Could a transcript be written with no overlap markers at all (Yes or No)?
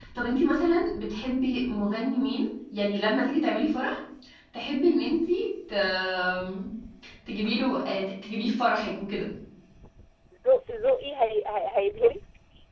Yes